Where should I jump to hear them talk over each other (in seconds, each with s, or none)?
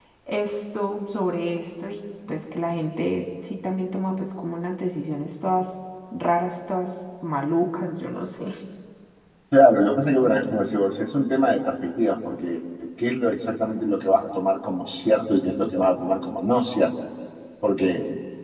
none